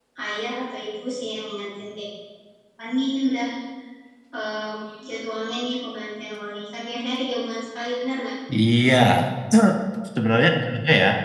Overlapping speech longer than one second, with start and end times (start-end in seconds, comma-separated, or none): none